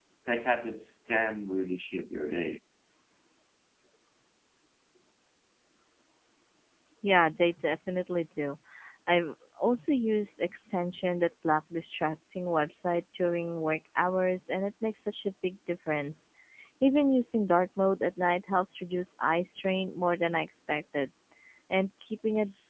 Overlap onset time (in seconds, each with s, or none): none